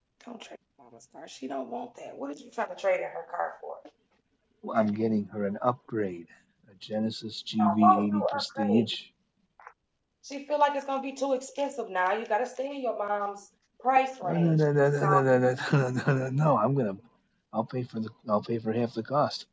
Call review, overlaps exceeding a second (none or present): present